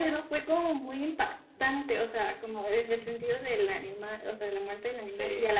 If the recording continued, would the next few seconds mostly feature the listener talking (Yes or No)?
No